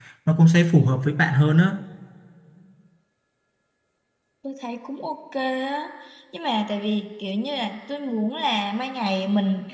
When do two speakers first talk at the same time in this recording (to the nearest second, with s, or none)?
none